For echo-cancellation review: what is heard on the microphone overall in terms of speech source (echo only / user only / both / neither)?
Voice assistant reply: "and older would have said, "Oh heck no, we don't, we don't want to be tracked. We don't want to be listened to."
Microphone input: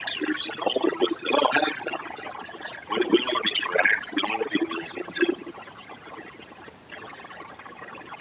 echo only